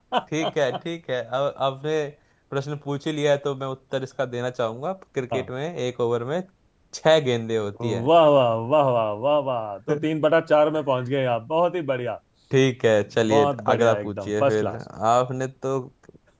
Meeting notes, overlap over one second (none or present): present